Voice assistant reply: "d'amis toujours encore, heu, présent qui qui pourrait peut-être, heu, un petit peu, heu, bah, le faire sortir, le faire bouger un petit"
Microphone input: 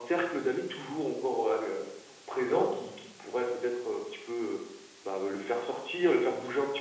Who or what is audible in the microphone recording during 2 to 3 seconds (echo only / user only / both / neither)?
echo only